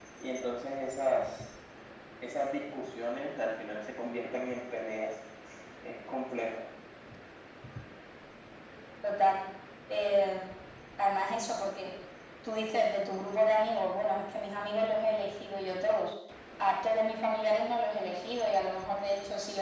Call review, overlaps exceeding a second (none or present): none